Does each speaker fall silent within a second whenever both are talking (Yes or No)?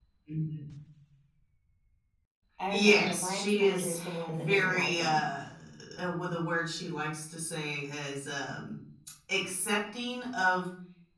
No